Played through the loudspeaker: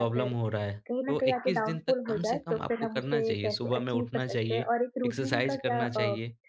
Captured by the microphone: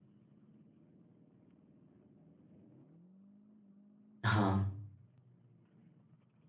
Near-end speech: present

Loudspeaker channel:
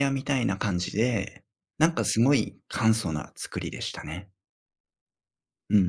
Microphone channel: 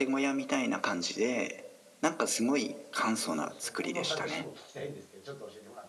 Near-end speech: present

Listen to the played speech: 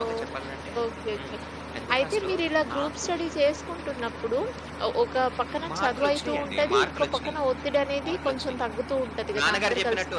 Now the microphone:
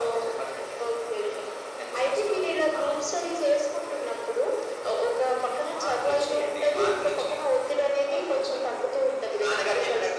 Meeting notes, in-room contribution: none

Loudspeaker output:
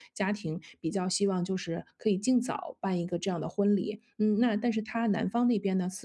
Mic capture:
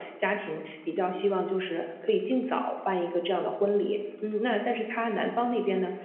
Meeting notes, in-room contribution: none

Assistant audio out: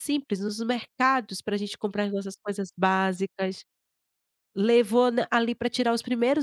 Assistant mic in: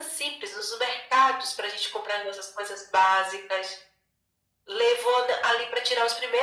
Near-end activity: none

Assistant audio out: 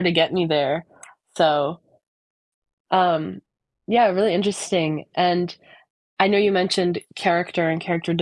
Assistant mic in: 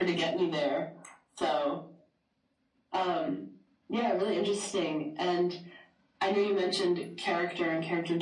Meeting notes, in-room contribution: none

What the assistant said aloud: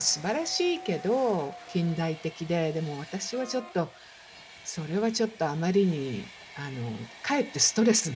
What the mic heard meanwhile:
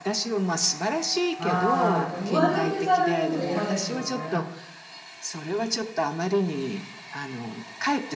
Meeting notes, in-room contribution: present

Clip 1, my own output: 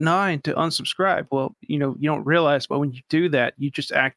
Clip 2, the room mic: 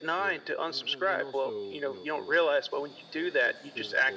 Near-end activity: present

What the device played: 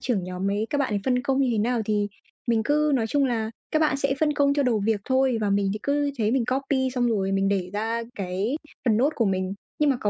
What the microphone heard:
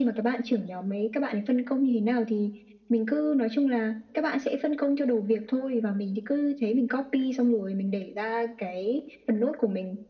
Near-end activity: none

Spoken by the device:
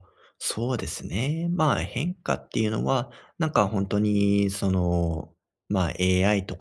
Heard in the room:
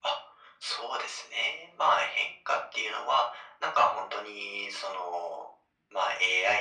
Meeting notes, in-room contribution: none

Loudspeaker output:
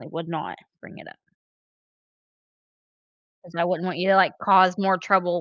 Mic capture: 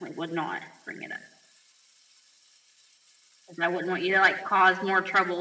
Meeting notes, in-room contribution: none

